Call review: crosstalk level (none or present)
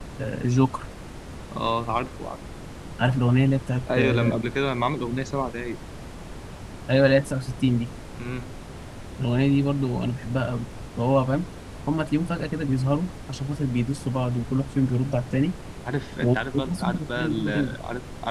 present